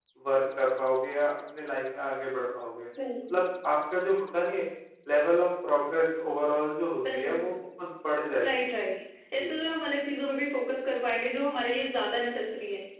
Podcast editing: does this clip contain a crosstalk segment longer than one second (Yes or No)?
No